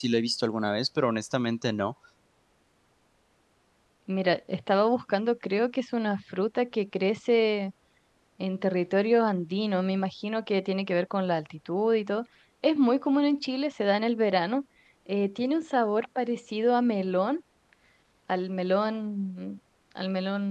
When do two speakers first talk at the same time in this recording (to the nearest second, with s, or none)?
none